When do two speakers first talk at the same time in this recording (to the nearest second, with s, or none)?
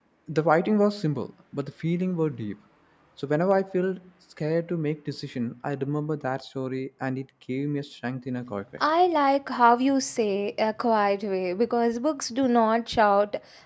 none